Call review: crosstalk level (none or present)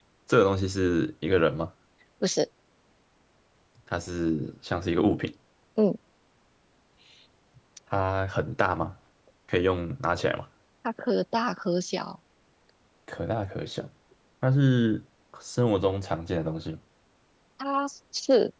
none